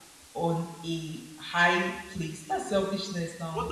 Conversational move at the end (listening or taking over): taking over